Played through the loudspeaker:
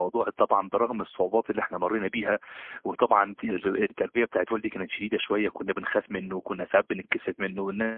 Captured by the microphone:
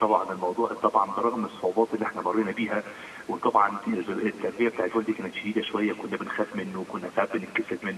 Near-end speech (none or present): none